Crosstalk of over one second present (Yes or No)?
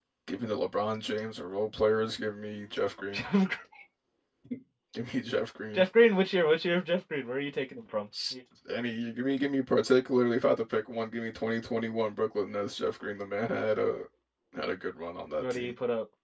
No